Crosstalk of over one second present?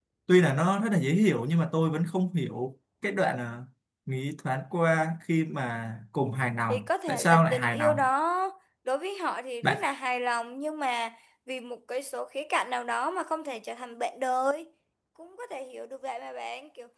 Yes, from 6.7 s

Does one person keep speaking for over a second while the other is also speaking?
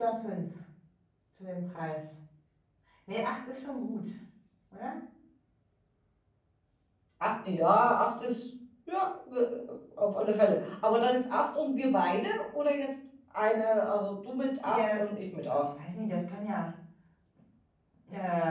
No

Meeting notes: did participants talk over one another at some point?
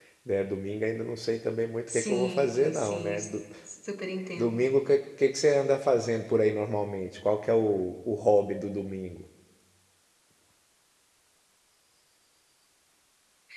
Yes, from 1.9 s

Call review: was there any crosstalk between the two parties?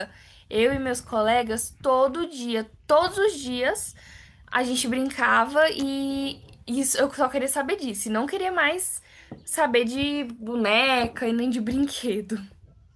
No

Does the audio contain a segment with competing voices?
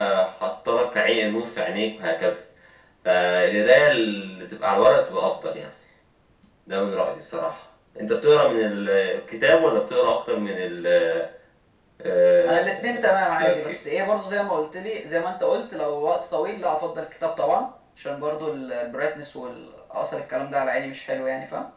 Yes, from 12.5 s

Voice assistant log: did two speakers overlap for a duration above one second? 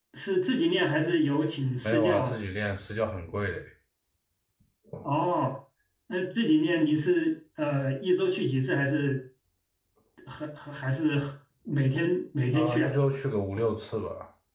No

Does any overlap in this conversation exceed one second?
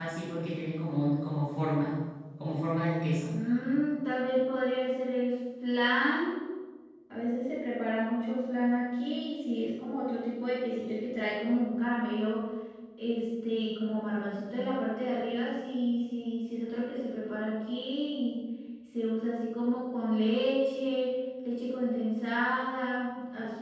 No

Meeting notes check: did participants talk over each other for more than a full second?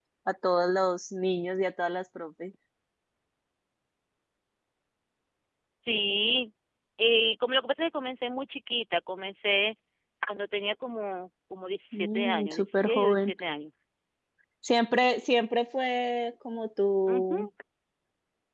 Yes, from 11.9 s

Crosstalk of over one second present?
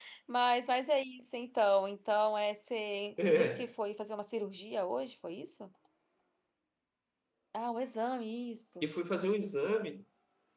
No

